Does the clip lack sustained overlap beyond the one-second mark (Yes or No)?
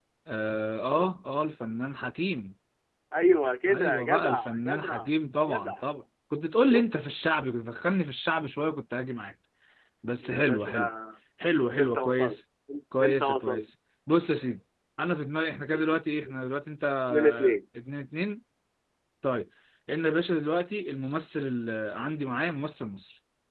No